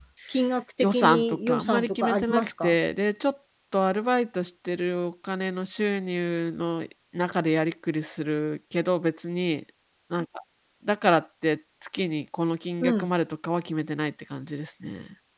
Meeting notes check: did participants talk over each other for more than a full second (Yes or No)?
Yes